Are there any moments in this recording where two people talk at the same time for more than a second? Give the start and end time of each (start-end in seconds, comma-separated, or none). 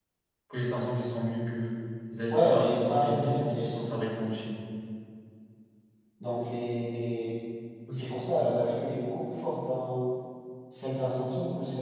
2.3-3.8